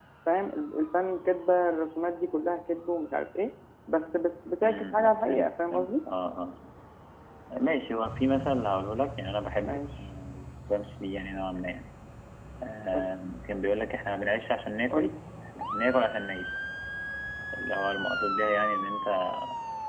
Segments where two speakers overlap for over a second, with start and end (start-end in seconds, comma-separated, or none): 4.6-5.9